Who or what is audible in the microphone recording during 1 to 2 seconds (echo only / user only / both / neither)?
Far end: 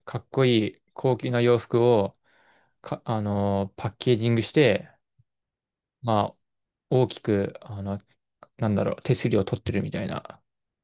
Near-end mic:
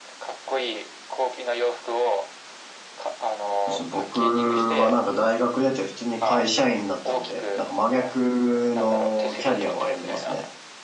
echo only